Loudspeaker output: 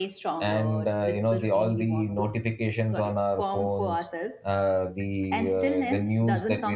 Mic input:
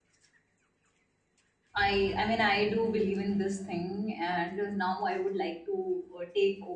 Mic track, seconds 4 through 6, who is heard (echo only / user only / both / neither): user only